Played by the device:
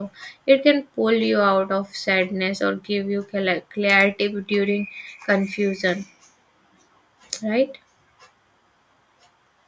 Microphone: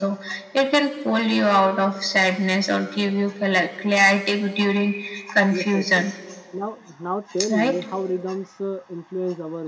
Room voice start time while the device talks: 5.5 s

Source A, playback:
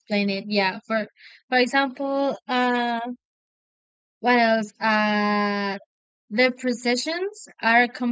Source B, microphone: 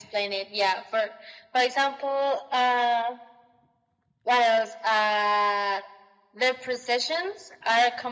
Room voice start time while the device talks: none

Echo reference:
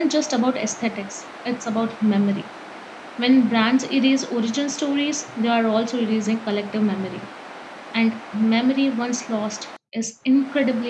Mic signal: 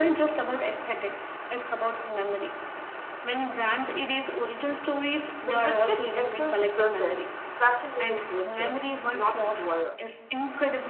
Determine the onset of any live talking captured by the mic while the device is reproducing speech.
5.4 s

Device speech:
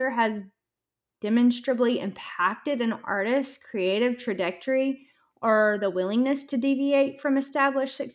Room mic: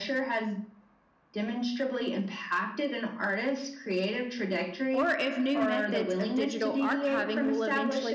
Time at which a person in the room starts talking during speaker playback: 4.9 s

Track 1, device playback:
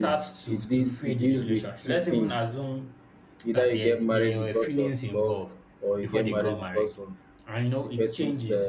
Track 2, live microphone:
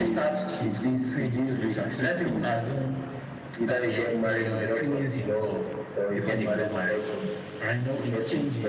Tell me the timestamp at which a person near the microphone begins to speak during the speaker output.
none

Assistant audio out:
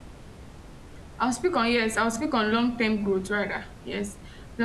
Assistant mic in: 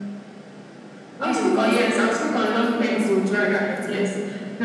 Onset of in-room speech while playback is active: 1.1 s

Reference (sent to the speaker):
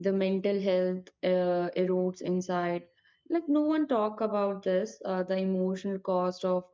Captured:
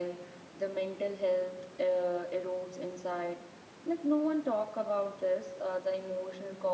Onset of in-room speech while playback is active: none

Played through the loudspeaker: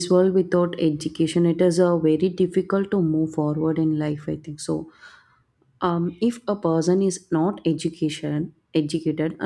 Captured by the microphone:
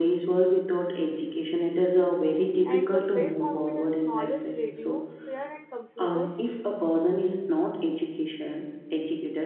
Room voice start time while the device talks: 2.6 s

